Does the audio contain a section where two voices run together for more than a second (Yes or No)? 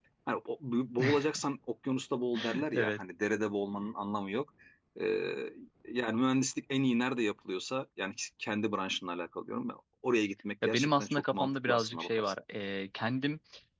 Yes